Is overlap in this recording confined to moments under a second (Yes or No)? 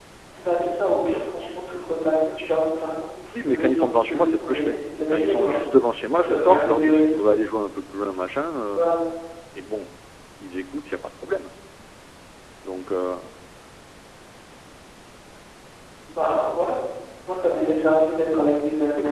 No